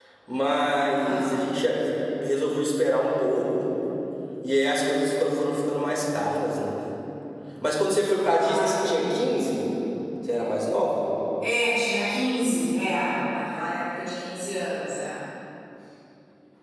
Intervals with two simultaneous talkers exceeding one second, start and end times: 8.2-9.4

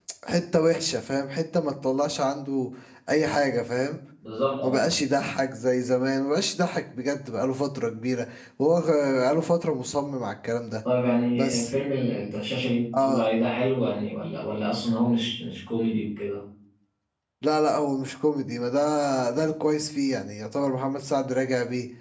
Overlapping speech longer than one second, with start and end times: none

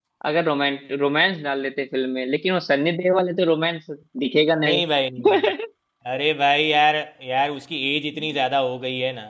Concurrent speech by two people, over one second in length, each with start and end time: none

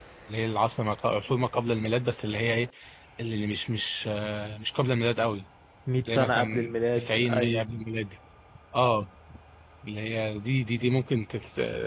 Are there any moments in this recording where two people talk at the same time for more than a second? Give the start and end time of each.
6.0-7.6

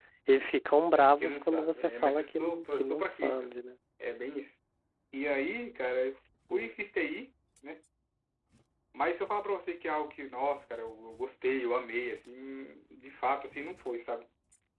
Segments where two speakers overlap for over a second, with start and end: 1.2-3.5

